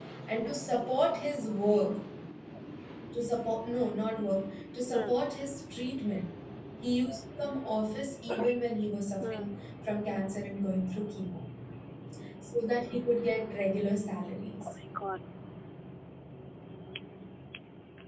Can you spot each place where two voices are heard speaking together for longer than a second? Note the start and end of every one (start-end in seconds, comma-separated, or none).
none